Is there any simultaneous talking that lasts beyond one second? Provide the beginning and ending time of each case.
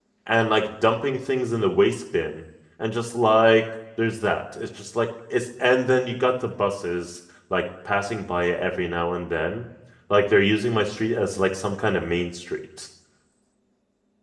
none

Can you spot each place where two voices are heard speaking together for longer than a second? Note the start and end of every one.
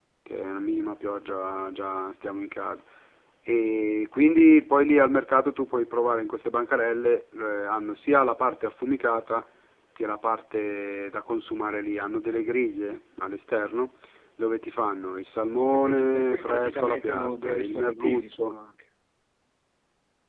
15.6-18.6

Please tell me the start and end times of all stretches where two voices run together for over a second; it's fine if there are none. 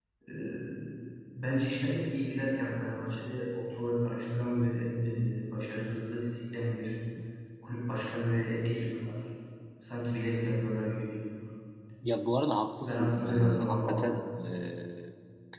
12.8-14.2

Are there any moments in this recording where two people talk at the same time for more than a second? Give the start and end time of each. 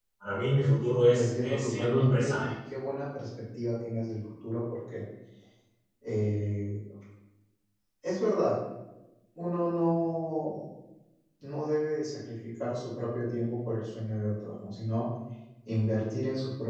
1.1-2.5

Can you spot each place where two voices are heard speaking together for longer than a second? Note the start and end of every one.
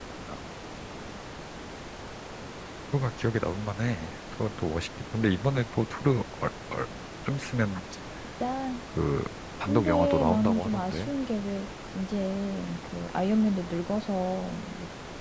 9.7-11.1

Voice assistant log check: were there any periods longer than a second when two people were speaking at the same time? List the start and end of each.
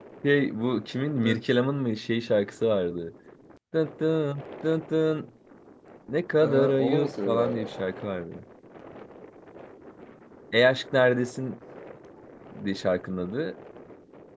6.4-7.7

